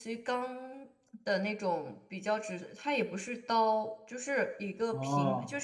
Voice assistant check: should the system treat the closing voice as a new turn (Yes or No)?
No